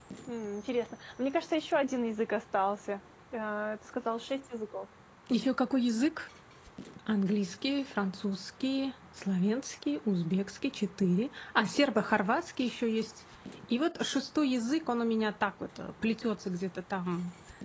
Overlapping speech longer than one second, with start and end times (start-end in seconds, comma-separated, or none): none